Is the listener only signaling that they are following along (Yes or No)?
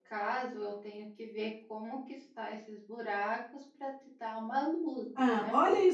No